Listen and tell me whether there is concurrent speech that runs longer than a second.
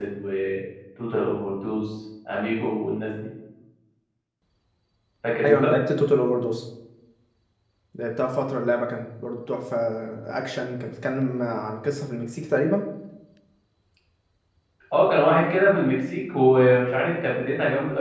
No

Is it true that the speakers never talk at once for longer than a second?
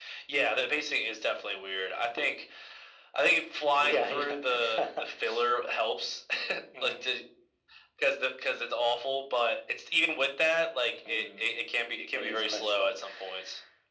No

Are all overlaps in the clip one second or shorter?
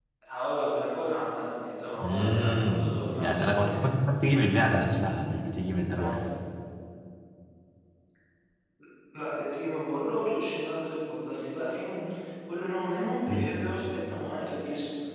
No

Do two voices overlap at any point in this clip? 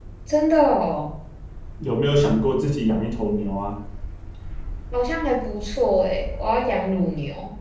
No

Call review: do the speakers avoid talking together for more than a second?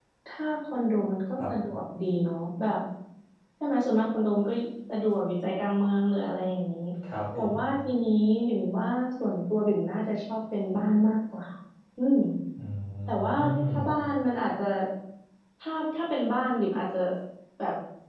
Yes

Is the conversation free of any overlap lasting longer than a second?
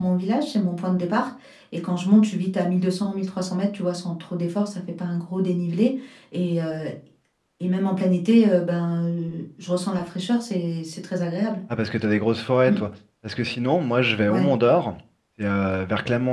Yes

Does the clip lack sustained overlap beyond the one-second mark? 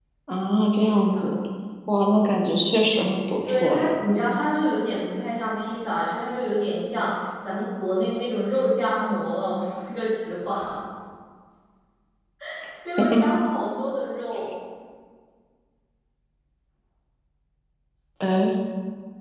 Yes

